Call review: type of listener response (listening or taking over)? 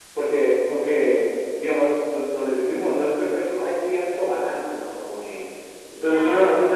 listening